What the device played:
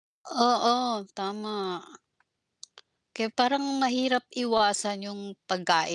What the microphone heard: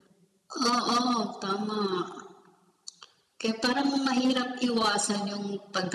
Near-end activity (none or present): none